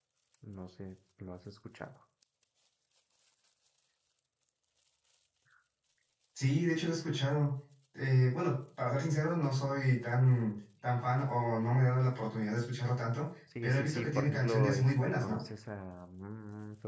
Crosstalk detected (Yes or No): Yes